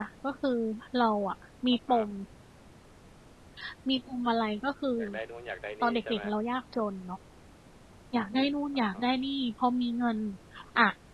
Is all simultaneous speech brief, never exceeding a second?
Yes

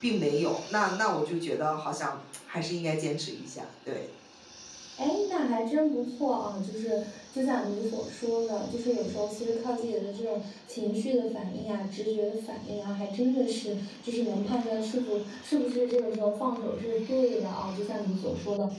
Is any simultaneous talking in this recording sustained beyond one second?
No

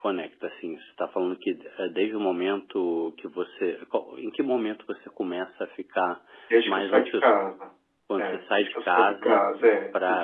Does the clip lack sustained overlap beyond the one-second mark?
No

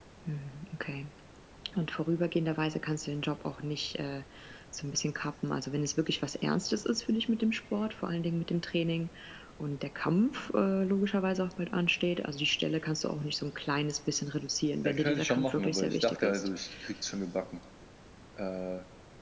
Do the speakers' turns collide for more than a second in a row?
Yes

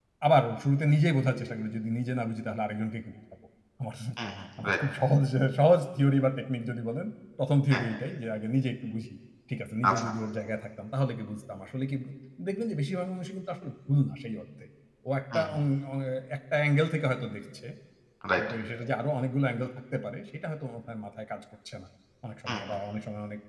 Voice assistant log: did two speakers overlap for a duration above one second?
No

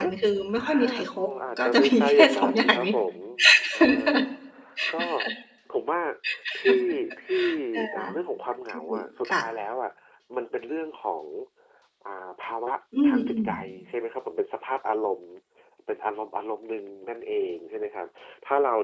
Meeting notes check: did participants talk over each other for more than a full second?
Yes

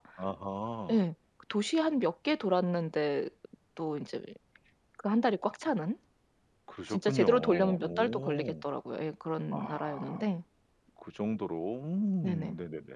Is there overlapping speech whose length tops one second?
Yes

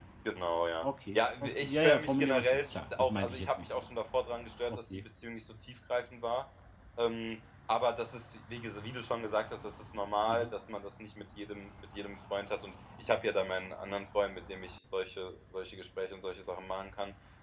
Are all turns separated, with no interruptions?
No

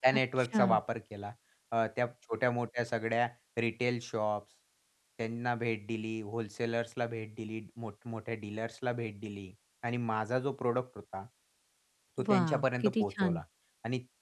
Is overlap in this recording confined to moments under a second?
No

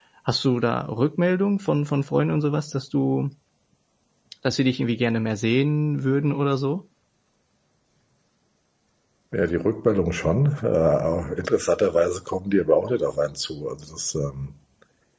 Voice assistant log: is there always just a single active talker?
Yes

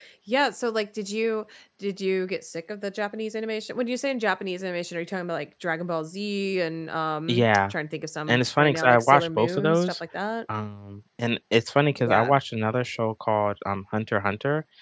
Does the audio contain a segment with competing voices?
Yes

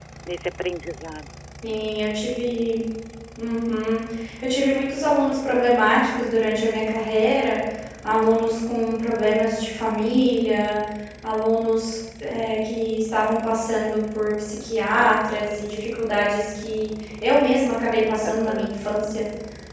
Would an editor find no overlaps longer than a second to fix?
Yes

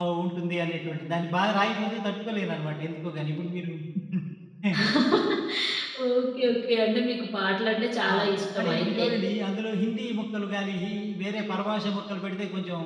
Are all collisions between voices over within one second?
Yes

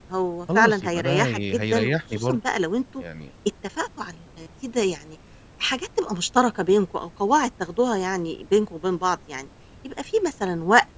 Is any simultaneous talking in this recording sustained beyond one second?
Yes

